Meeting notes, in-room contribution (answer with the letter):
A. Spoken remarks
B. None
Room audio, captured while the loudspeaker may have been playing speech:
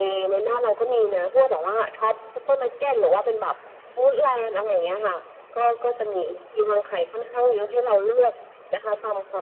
B